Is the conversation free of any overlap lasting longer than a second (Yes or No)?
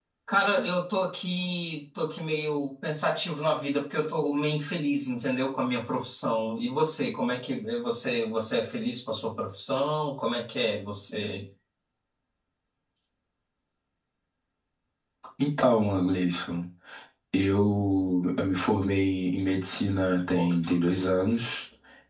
Yes